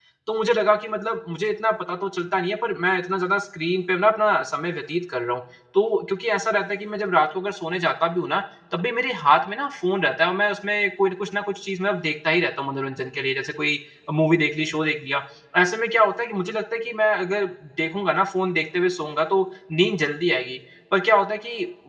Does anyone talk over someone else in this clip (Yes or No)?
No